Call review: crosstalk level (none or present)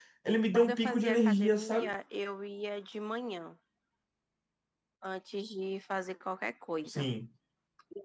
present